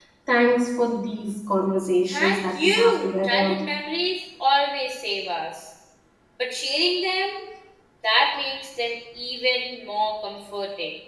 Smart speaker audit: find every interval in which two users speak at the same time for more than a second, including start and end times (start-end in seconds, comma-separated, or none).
2.1-3.6